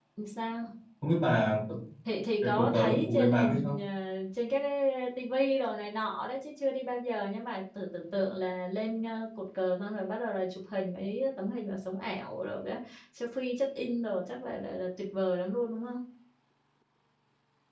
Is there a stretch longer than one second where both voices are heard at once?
Yes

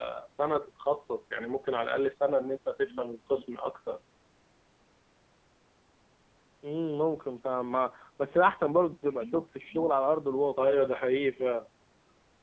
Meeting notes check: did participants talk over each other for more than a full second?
No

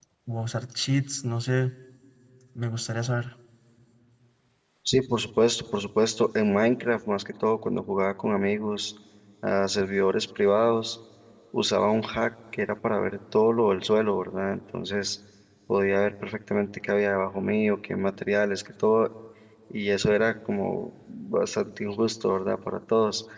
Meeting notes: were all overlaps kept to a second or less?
Yes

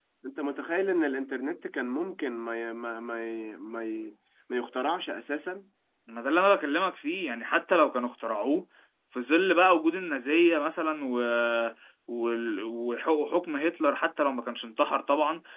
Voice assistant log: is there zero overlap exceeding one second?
Yes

